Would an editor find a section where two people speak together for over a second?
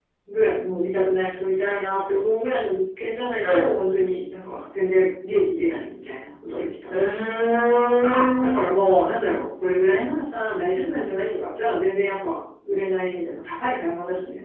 No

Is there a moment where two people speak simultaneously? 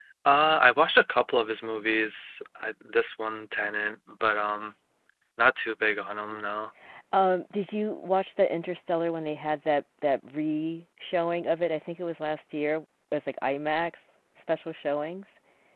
No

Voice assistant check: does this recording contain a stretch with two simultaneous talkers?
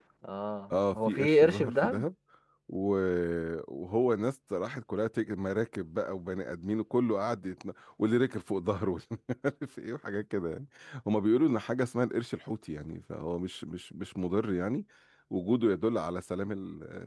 Yes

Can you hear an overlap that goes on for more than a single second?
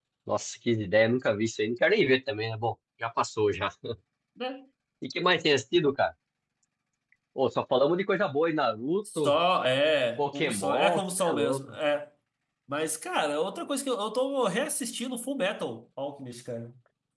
Yes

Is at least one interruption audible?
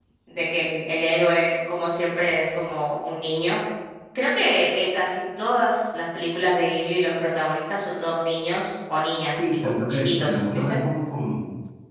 Yes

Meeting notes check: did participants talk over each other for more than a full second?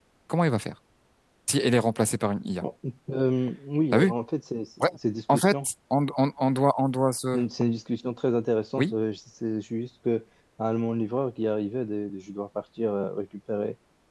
No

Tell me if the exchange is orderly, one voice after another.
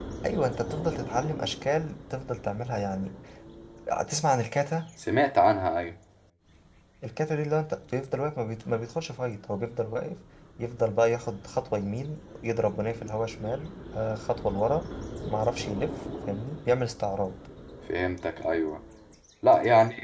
Yes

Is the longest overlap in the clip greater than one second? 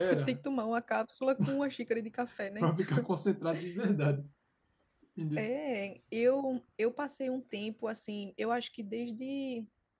No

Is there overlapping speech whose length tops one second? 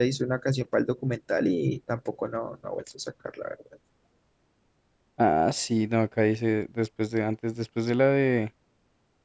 No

